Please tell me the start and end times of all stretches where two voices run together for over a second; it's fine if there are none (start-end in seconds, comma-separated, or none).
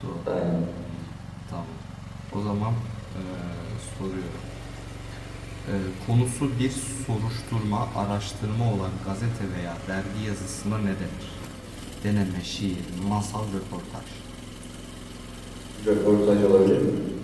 none